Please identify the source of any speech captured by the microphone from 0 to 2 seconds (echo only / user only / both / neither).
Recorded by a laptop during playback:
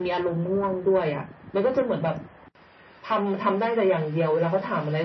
echo only